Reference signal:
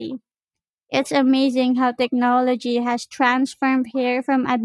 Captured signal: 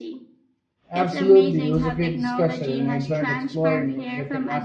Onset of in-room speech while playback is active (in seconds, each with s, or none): 0.9 s